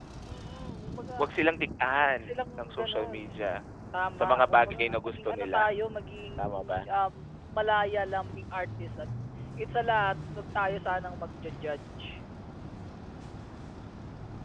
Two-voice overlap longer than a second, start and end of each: 2.0-3.4, 4.2-5.6

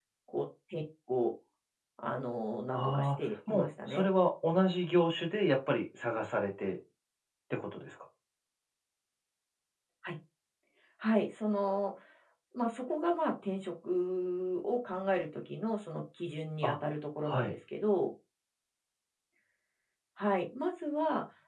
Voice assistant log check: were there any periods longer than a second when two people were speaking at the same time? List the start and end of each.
2.7-4.0

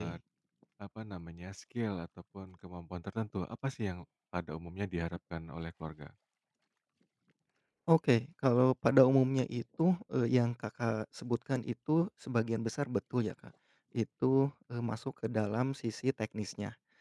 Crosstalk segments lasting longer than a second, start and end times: none

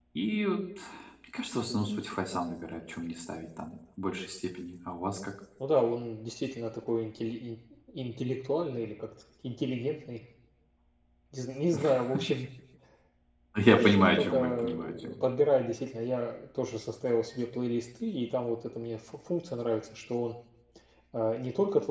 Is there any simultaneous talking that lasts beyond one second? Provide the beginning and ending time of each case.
13.8-15.1

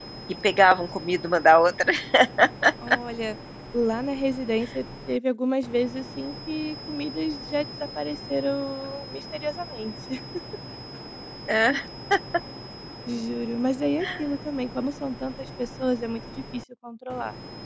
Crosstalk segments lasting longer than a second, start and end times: none

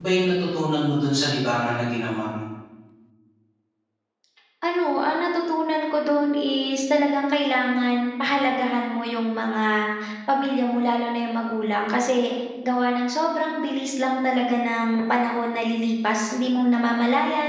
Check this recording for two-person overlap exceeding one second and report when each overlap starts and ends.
none

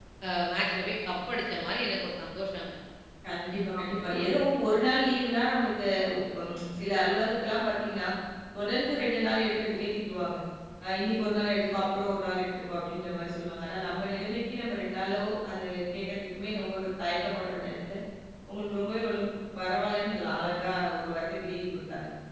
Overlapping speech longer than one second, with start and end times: none

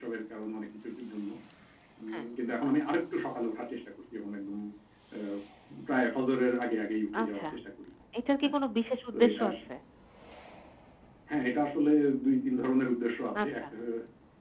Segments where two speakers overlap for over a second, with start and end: none

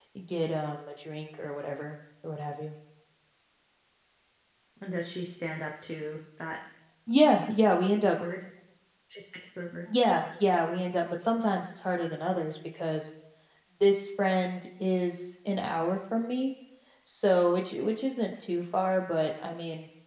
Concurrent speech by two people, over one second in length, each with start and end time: none

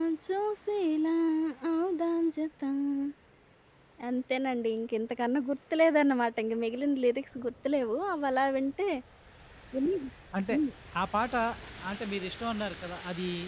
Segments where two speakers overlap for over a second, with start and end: none

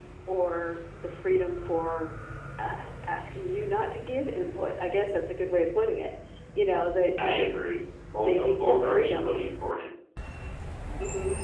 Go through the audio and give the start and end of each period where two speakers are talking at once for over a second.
8.1-9.3

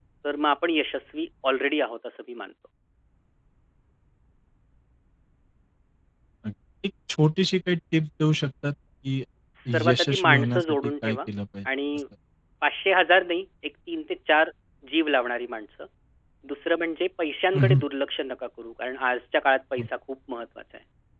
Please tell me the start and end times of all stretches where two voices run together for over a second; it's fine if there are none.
9.9-11.2

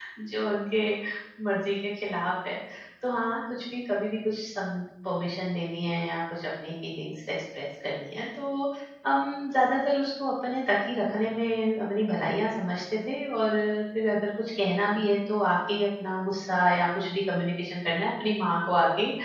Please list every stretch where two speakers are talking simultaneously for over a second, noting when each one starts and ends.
none

